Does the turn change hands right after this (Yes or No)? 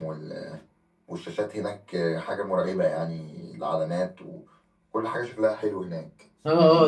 Yes